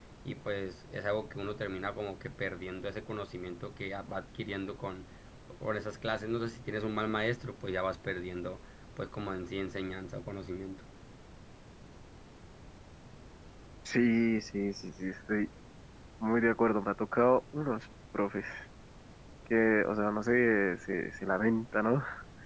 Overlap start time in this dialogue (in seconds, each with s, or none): none